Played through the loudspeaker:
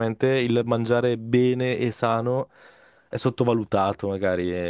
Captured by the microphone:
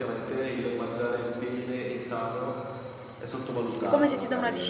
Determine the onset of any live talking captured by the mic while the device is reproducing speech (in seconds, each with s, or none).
3.8 s